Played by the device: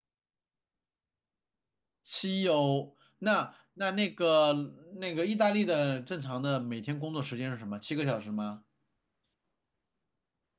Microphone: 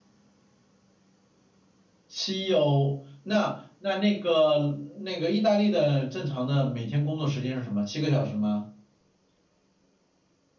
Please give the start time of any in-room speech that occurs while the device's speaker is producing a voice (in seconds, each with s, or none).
none